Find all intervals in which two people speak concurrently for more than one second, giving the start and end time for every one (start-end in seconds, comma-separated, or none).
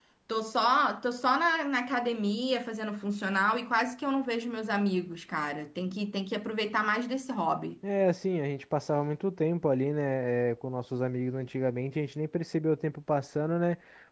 none